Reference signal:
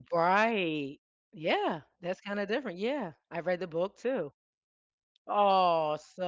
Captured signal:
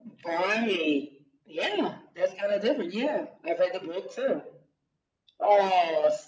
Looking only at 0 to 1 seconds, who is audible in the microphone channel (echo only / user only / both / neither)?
echo only